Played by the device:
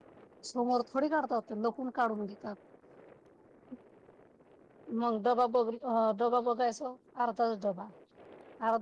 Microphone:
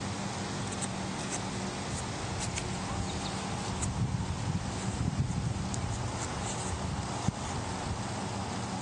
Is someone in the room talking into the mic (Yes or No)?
No